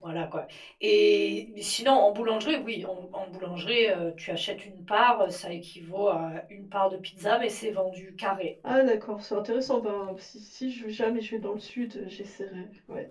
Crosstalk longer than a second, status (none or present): none